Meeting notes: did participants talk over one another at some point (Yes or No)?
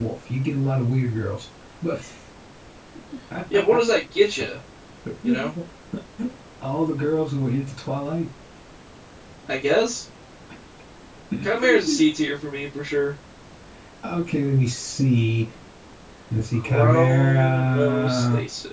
Yes